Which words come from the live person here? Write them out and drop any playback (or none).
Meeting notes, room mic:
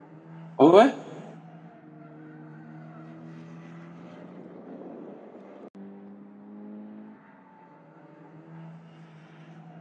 Ouais.